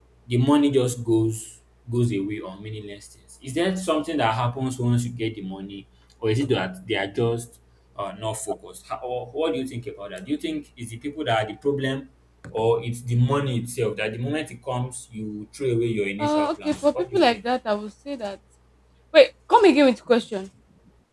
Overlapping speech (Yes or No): Yes